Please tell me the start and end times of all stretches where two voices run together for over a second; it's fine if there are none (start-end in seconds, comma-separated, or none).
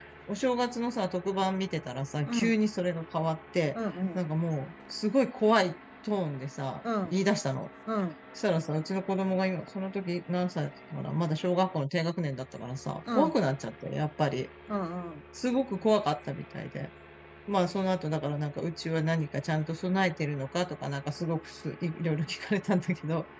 none